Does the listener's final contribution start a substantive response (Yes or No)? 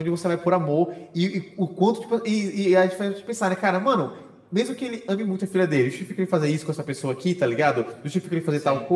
No